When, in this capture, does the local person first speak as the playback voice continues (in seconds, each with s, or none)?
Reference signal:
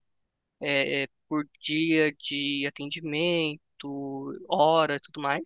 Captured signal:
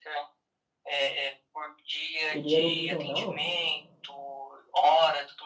2.3 s